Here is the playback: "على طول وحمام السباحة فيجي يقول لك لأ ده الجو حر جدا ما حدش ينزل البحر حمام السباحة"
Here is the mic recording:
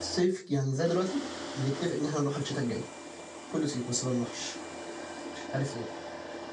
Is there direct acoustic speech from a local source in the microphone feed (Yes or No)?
Yes